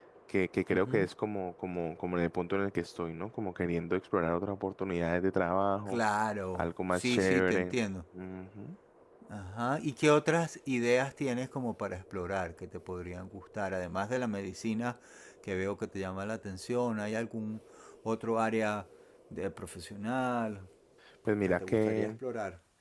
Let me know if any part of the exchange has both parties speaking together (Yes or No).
Yes